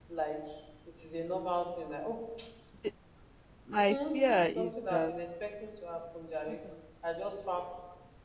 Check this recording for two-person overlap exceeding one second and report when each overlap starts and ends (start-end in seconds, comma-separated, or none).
3.9-5.1